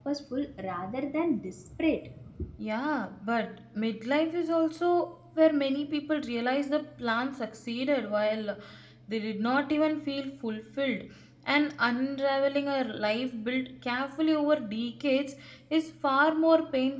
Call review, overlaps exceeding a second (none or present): none